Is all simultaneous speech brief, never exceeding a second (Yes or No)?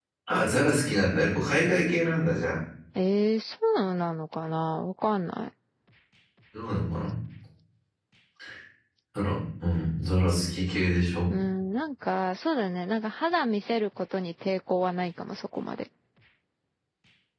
Yes